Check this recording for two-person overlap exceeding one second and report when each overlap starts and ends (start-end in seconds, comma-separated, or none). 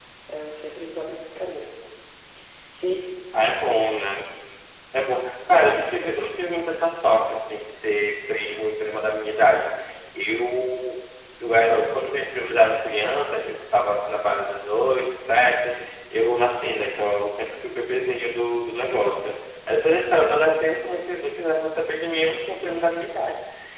none